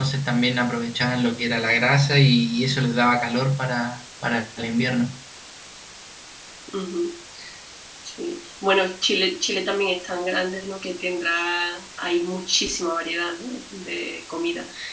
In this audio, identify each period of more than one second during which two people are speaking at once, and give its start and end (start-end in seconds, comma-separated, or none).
none